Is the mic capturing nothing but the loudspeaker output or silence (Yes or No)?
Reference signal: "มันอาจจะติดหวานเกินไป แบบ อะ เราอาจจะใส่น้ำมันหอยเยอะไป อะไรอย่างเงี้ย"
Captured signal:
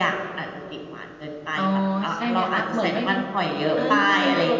No